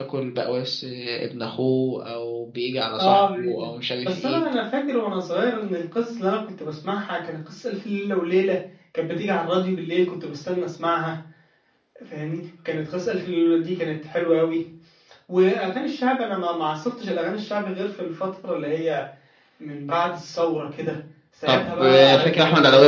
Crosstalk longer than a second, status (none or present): present